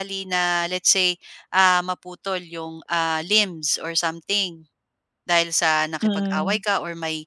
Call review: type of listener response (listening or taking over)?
listening